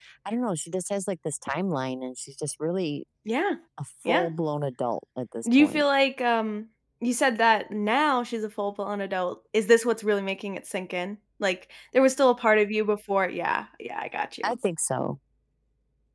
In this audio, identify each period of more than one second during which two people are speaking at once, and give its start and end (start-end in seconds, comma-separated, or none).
none